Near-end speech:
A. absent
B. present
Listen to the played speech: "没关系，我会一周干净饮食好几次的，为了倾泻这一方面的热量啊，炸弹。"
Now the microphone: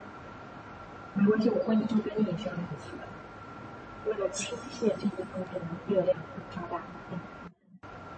A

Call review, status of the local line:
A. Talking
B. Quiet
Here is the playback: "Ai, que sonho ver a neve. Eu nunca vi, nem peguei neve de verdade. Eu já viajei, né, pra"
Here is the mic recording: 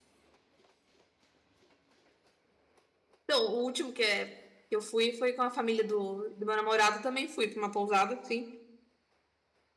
A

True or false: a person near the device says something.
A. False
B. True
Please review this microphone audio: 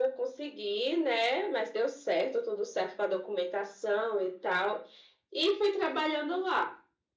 A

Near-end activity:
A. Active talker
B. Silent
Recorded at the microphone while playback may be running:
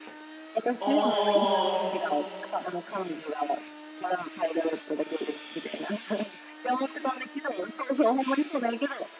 A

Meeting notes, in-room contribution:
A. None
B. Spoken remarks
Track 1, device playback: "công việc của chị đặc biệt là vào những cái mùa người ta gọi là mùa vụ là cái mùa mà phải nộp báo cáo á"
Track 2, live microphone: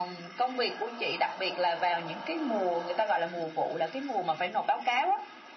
A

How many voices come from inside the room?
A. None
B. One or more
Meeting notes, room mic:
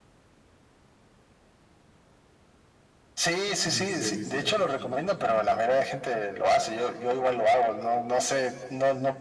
B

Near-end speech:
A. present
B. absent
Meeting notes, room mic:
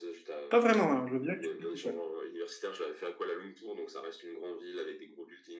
A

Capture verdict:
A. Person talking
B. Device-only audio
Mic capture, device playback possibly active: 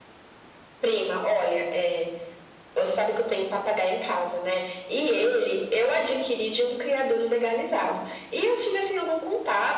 B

